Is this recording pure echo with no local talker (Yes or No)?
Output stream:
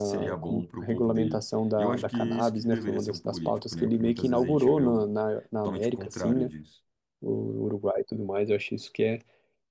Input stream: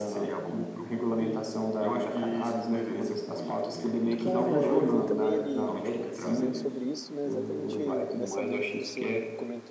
No